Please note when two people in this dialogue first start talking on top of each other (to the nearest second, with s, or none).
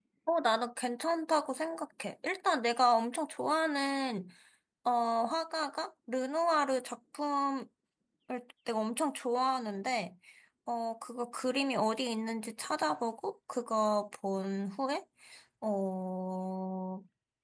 none